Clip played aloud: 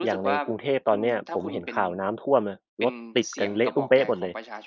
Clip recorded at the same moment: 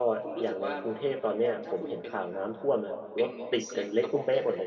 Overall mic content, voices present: echo only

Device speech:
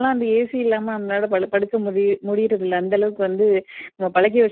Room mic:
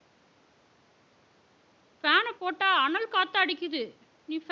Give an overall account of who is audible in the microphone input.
user only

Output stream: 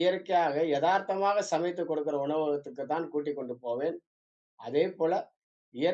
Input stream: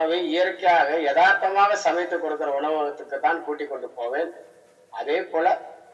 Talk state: echo only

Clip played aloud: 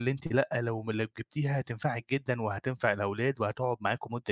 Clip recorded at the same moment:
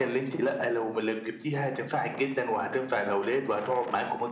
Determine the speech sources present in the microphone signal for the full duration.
echo only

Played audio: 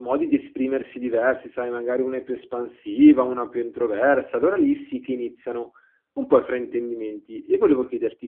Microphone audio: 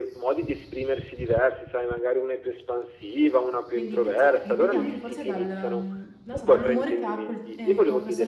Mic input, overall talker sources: both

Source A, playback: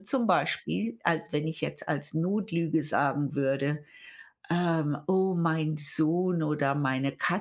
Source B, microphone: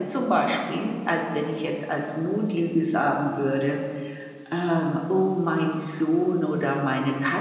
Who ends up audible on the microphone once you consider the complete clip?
echo only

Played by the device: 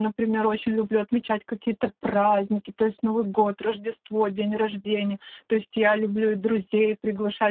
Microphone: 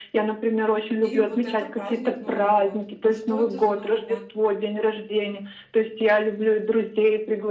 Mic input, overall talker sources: both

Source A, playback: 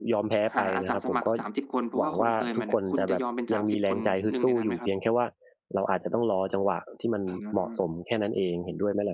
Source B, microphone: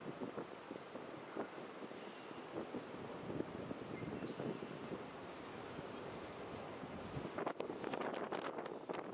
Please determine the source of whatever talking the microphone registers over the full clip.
neither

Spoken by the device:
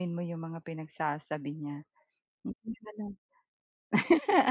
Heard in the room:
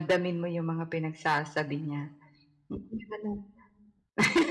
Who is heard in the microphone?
echo only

